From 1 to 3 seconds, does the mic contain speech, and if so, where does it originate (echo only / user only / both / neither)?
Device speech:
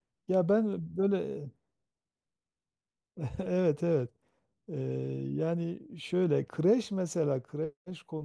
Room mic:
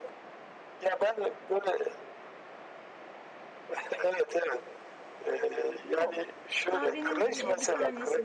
echo only